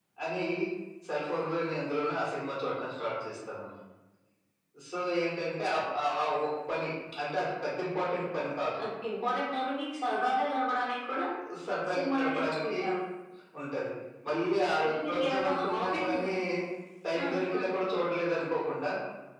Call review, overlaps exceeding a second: present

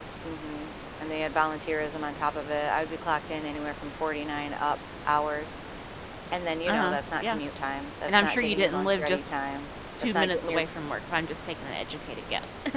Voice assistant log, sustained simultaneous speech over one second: present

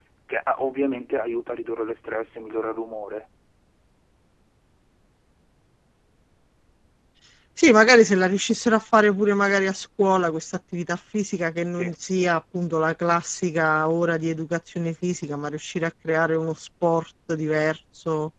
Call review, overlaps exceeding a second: none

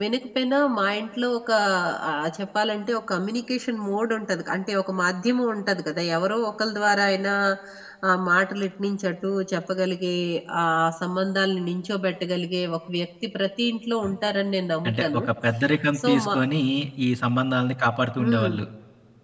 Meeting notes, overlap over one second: none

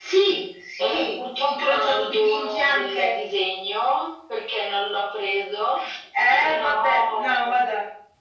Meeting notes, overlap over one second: present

